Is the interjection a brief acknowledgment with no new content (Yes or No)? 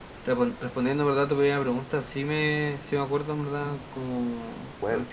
Yes